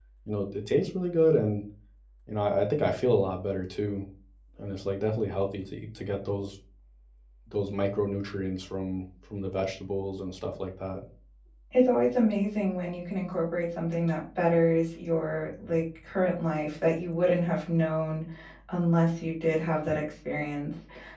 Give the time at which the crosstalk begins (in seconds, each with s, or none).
none